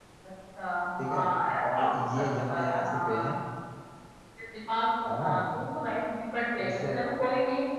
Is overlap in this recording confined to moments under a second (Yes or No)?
No